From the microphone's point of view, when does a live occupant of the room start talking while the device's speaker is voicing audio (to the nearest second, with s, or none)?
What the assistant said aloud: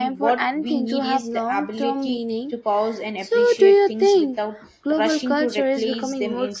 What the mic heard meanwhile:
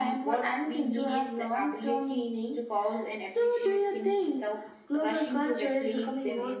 none